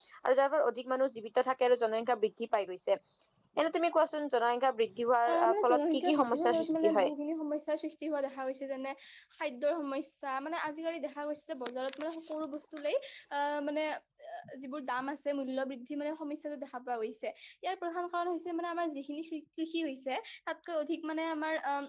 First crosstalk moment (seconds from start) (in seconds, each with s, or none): 5.2 s